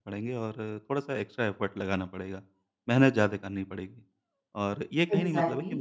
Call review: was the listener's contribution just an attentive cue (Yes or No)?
Yes